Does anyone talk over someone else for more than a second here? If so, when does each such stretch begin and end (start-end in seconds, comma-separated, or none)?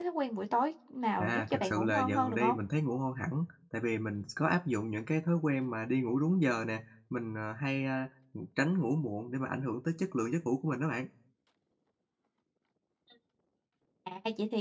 1.2-2.6